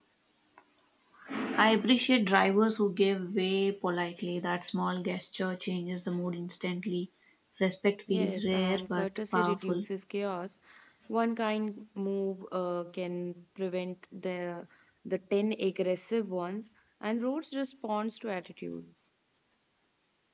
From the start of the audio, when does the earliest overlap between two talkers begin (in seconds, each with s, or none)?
8.1 s